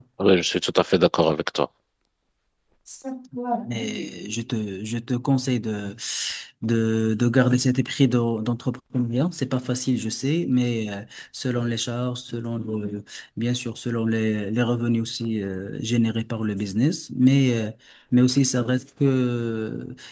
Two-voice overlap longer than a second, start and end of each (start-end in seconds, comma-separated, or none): none